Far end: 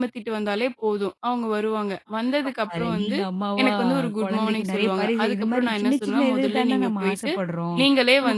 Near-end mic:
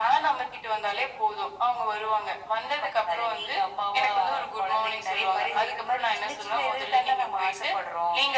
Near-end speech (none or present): none